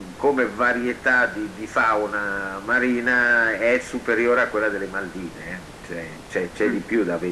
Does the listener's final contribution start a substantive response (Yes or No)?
No